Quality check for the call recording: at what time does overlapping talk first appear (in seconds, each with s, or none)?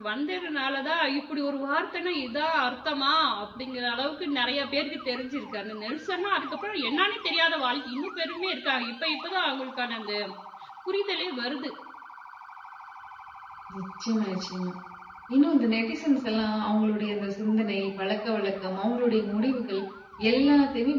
none